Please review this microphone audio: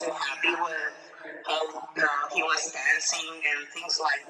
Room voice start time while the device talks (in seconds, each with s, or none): none